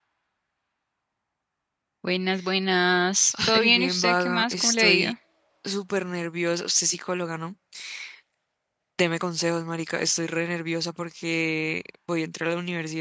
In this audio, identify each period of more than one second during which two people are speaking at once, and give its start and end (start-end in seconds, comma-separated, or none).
3.5-5.1